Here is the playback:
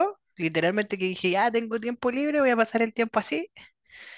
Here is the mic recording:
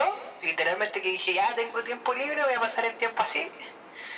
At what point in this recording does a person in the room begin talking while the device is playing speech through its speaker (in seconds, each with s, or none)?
none